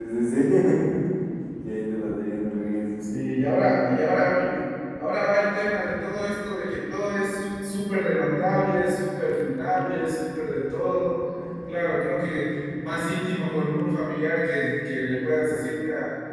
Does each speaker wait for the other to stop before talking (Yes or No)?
Yes